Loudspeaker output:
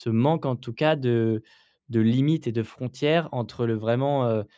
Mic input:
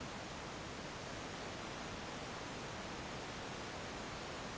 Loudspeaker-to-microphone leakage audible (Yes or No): No